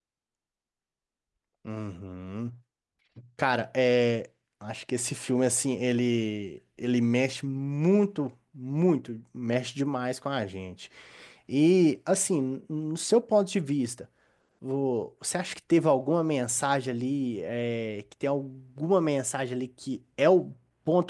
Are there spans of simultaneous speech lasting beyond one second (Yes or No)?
No